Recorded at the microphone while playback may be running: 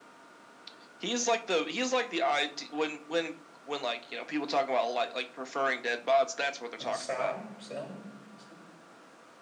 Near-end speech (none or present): present